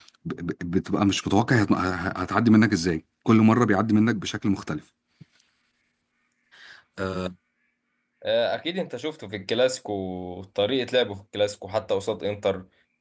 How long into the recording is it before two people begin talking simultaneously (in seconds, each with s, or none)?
none